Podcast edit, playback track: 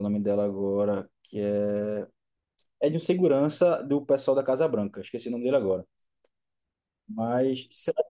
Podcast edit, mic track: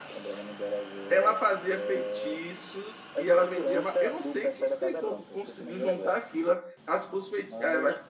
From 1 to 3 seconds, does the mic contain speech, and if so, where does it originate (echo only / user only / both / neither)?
both